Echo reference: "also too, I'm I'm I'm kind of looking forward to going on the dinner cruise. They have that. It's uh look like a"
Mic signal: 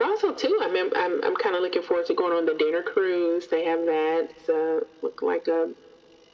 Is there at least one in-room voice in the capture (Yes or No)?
No